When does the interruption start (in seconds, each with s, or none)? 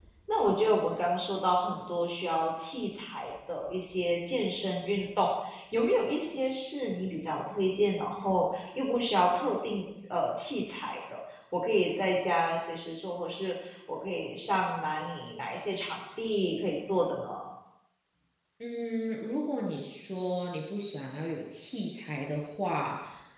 none